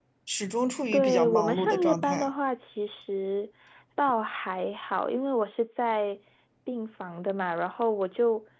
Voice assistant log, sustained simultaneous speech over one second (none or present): present